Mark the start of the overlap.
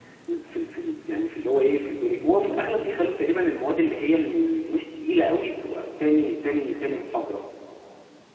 none

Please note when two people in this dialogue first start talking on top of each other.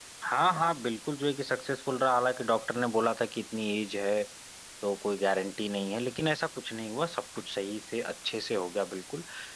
none

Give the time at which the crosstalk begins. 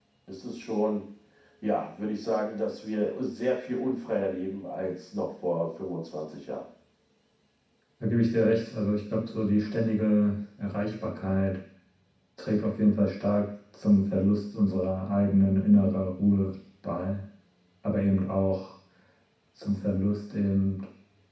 none

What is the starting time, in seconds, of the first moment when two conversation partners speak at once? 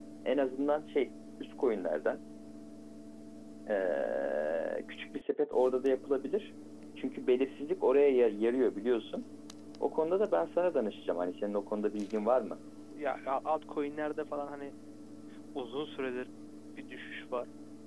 none

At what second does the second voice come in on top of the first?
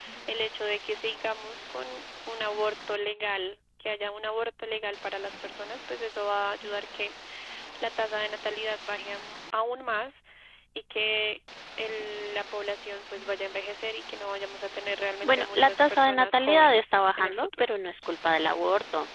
15.2 s

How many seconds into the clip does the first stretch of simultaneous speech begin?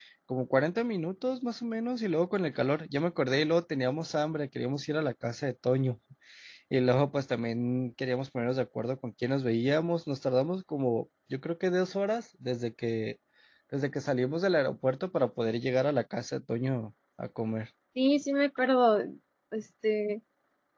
none

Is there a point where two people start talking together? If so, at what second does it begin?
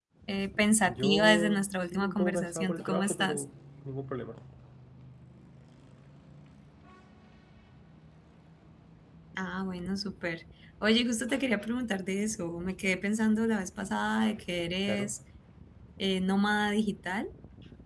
0.8 s

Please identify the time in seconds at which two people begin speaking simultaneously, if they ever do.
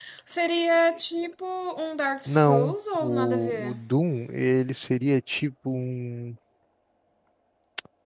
2.3 s

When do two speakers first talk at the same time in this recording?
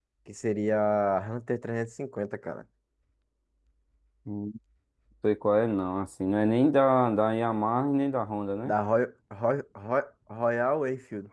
none

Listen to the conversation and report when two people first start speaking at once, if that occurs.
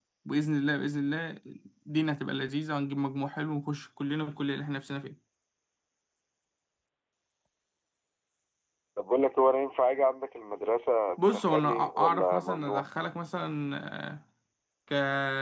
11.2 s

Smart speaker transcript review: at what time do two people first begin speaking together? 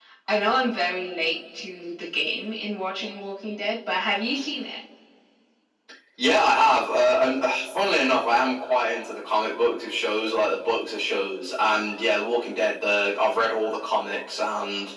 none

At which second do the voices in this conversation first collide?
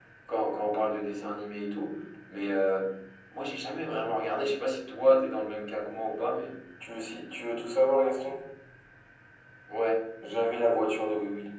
none

